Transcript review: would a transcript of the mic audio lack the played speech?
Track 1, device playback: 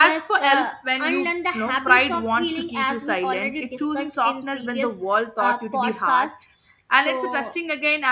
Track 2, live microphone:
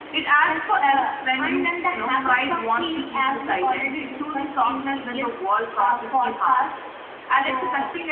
No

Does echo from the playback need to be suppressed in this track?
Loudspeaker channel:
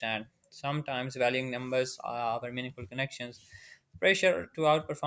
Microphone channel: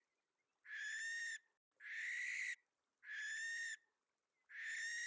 No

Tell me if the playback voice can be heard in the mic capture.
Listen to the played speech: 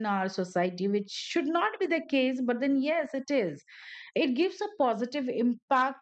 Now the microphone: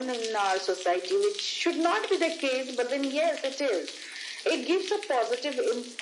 Yes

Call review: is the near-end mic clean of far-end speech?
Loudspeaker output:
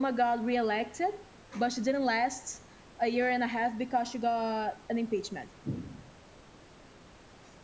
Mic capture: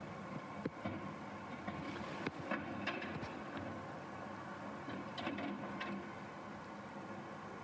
Yes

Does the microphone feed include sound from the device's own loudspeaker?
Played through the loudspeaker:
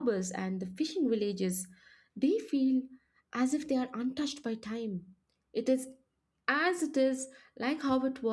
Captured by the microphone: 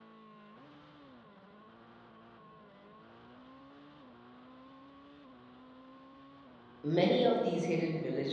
No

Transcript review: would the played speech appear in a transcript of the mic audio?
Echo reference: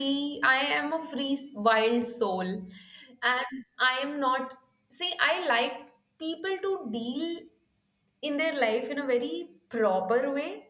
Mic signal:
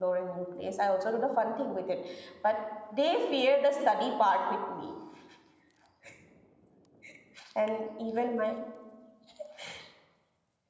No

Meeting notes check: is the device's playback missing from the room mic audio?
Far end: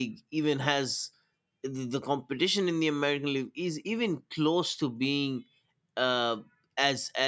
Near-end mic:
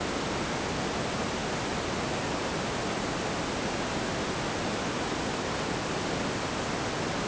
Yes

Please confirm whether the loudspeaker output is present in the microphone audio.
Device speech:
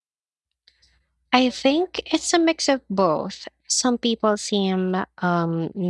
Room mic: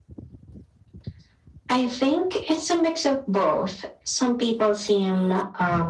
Yes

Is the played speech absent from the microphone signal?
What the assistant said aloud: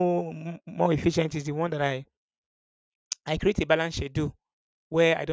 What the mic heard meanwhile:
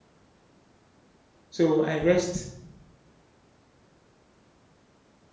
Yes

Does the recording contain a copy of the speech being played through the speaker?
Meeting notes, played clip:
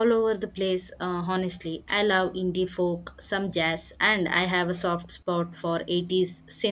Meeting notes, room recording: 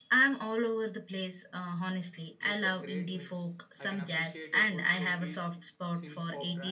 Yes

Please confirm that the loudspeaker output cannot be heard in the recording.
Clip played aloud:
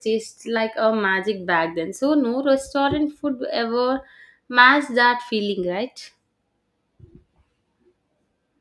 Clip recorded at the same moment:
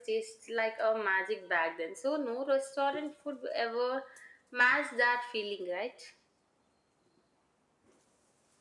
No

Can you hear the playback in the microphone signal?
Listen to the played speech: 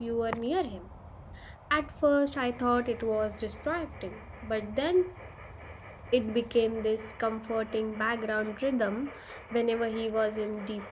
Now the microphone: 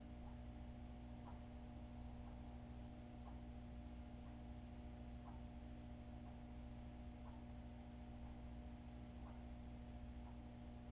No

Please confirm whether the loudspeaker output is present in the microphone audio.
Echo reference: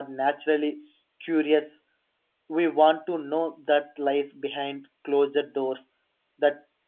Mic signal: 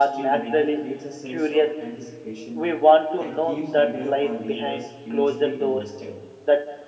Yes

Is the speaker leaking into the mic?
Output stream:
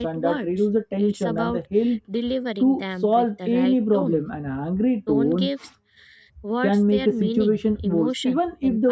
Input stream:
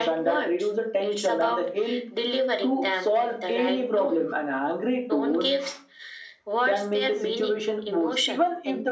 Yes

